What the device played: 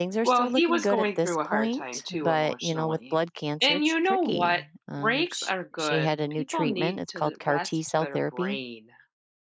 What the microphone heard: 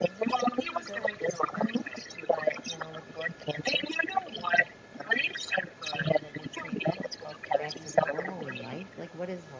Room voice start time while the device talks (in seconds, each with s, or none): 7.6 s